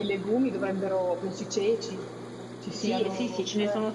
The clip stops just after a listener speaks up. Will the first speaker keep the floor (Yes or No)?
No